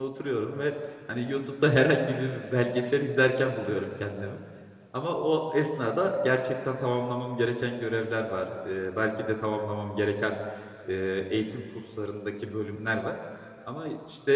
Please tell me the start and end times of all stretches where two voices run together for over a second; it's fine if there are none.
none

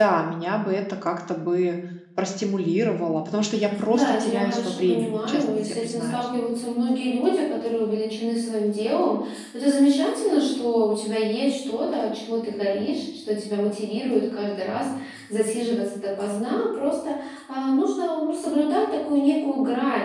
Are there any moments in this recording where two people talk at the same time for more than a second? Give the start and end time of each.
3.9-6.3

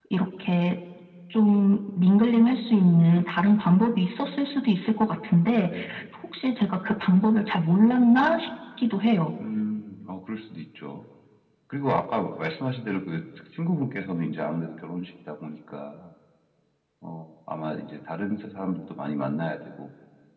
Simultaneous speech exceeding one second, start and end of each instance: none

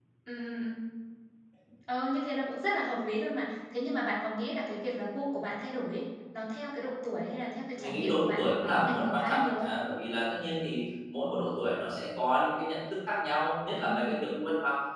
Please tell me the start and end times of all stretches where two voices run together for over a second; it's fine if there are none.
7.8-9.7

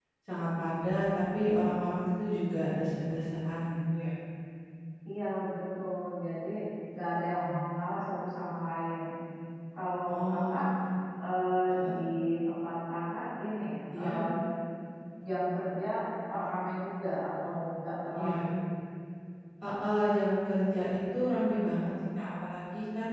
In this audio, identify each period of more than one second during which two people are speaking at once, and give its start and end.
none

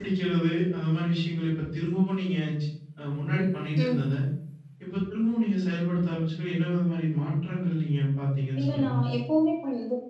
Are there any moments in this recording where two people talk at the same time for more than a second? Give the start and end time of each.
none

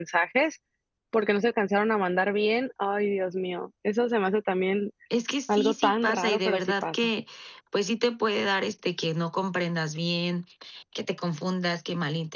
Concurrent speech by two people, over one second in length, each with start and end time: 5.5-7.1

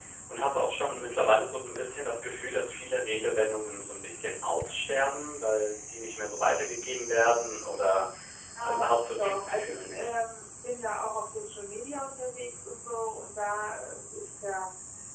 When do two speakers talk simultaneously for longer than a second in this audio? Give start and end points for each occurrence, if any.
8.6-10.1

